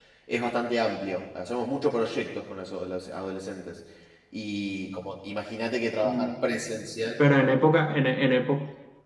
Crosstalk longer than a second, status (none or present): none